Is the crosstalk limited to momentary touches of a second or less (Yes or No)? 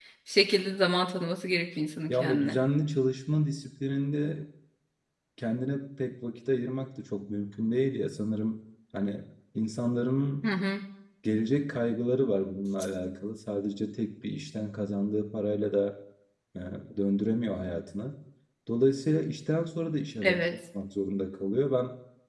Yes